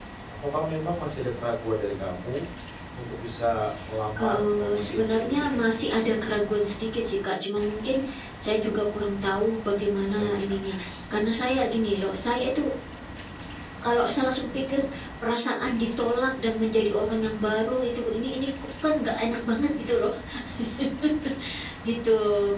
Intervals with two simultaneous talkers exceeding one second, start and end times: 4.2-5.8

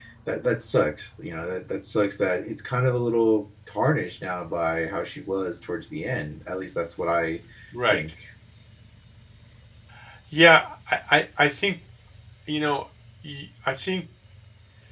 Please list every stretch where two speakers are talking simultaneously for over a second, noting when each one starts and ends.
none

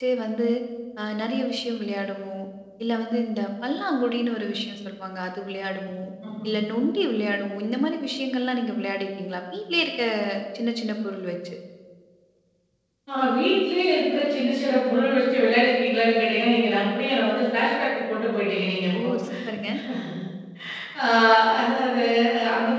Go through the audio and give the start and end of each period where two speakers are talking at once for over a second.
none

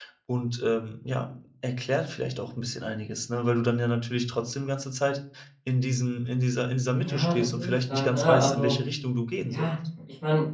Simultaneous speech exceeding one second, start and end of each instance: 6.9-8.7

